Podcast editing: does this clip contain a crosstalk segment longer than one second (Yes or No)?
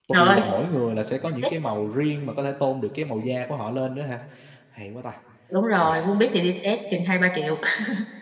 No